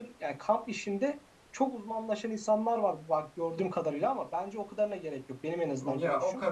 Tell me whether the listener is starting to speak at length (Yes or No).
Yes